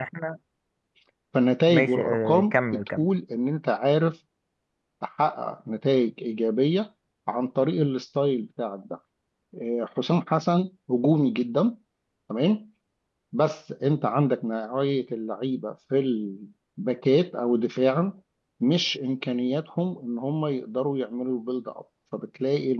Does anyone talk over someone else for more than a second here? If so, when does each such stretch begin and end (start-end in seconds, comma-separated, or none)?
1.7-3.0